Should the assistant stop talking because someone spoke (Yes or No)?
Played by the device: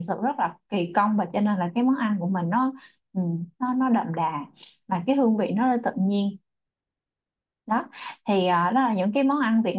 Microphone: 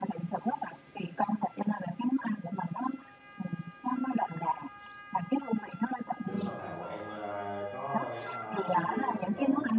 Yes